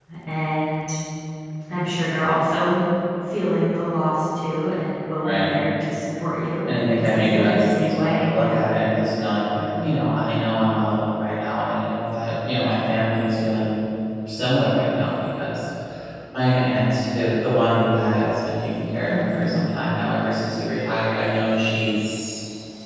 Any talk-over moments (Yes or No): Yes